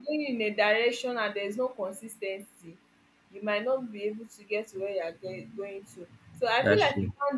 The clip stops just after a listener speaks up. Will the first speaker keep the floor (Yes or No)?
Yes